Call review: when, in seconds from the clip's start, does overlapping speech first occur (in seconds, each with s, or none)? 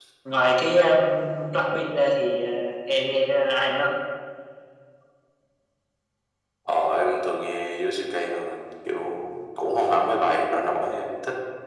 none